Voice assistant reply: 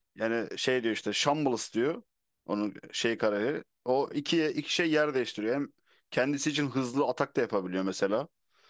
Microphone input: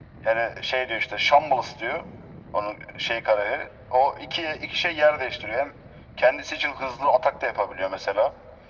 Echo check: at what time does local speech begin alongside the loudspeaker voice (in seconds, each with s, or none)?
none